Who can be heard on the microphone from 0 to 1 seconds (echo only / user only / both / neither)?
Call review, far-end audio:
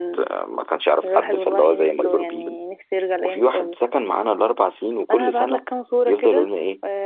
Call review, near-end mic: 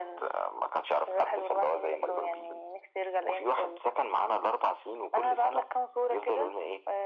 echo only